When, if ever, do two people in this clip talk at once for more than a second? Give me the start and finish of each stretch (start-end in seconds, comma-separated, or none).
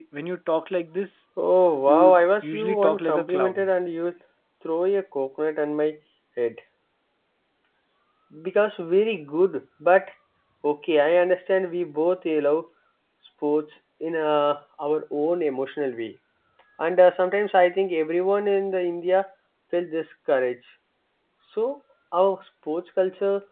1.9-3.7